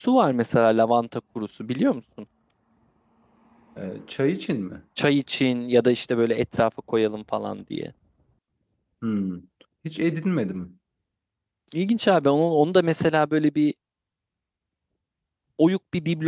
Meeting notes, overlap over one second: none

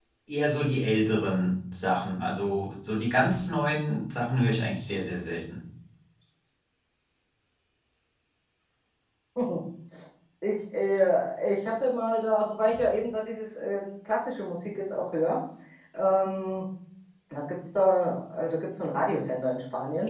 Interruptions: none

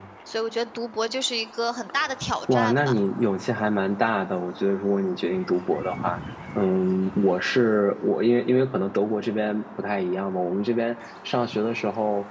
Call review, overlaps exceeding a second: none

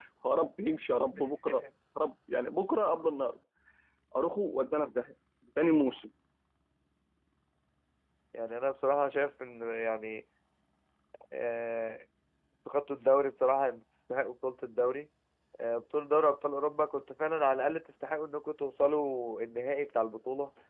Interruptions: none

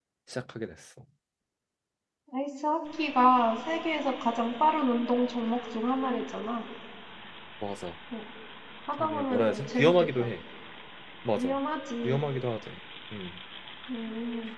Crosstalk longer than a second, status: present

